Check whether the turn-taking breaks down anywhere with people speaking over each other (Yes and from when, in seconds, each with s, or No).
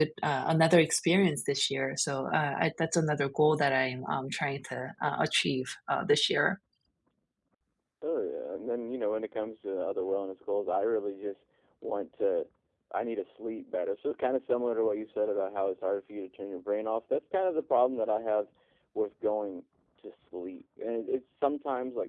No